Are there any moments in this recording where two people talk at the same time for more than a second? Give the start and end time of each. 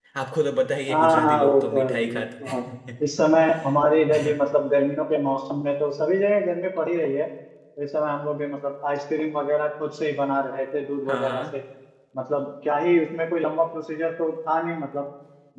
0.9-2.6

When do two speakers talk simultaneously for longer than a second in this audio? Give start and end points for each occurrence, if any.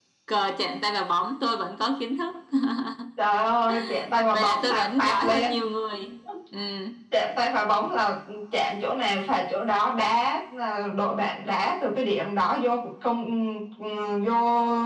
4.3-5.6

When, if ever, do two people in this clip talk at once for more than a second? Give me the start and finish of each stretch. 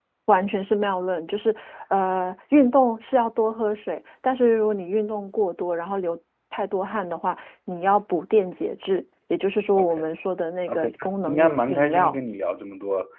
10.7-12.2

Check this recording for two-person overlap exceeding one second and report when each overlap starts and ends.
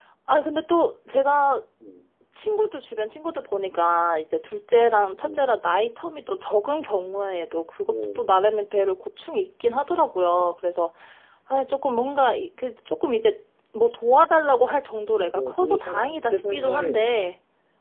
15.1-17.0

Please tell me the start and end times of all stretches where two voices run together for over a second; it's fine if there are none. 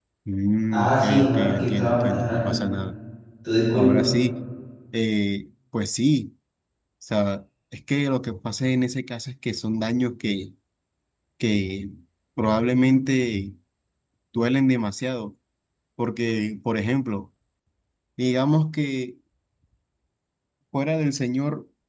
0.7-2.5

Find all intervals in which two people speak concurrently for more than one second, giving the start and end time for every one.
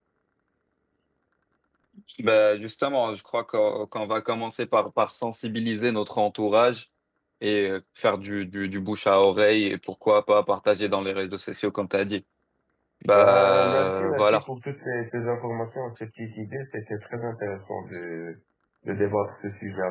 13.1-14.4

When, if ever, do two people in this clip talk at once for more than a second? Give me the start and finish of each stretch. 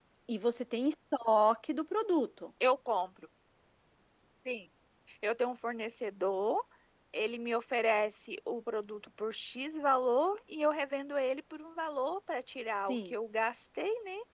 none

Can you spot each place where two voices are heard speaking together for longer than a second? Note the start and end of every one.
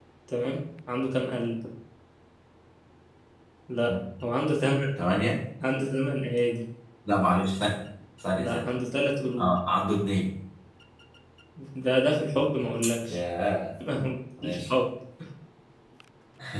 none

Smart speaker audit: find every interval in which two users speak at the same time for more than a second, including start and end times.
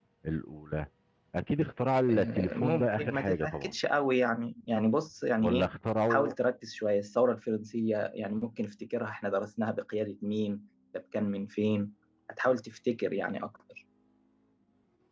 2.1-3.7

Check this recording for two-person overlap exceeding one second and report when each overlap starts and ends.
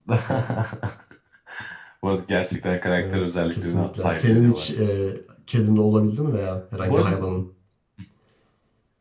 3.0-4.7

